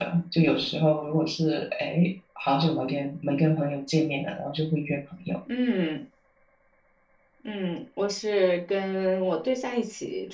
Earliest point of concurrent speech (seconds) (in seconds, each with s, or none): none